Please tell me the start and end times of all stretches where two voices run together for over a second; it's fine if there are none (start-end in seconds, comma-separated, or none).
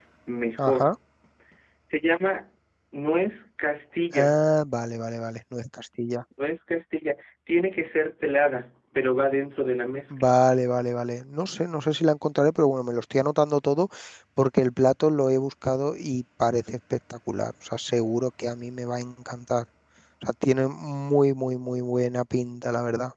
none